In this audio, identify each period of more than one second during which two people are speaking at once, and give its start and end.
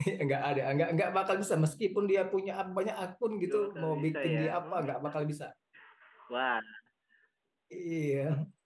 3.5-4.8

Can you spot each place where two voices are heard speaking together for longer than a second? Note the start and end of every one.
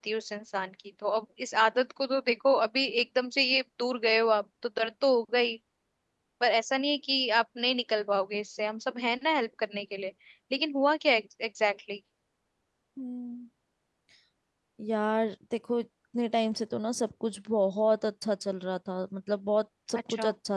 none

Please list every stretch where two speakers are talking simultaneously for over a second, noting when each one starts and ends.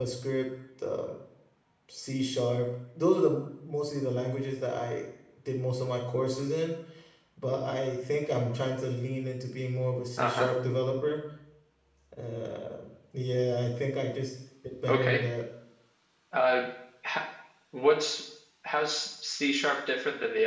none

